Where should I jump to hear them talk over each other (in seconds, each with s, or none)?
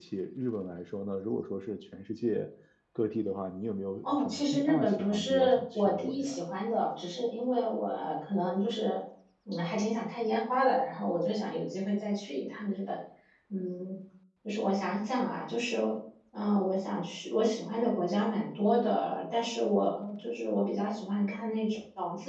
4.0 s